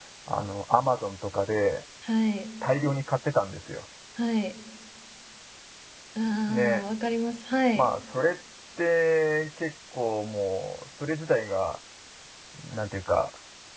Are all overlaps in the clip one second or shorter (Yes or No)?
Yes